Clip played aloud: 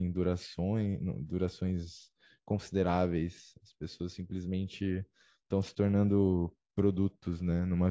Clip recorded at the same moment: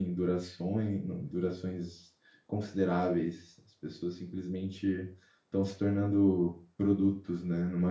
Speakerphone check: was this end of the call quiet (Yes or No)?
Yes